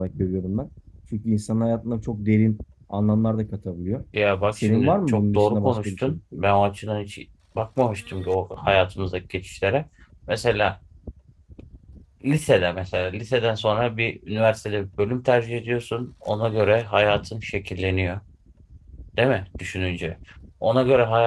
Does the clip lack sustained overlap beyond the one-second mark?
No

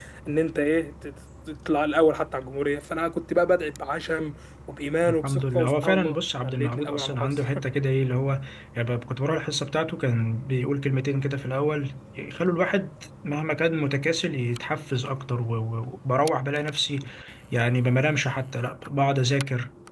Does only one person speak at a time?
No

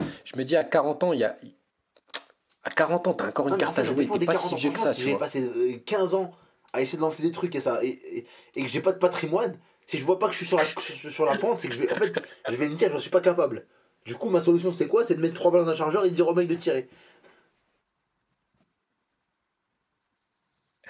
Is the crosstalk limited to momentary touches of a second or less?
No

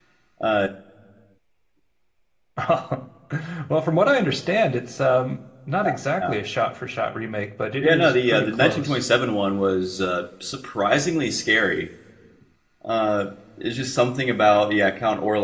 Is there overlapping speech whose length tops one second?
Yes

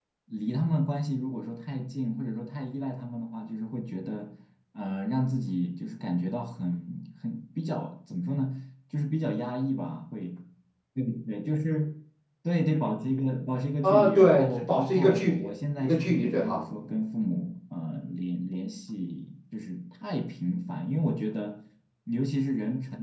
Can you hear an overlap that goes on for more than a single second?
Yes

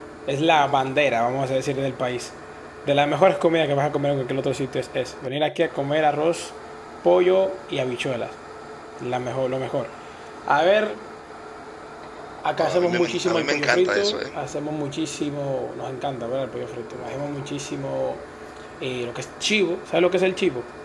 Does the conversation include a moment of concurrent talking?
Yes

